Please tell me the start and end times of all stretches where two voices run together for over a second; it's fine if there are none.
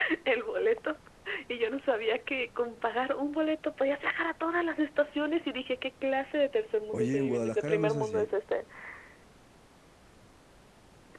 6.9-8.3

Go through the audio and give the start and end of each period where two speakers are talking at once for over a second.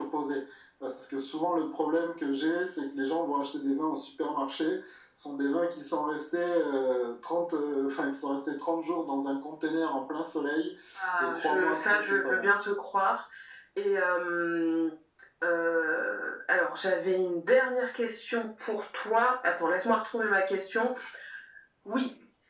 11.2-12.5

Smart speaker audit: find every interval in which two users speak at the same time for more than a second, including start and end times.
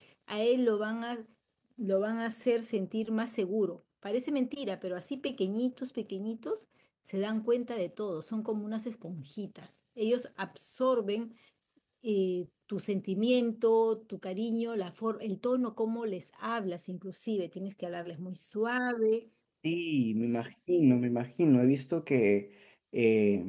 none

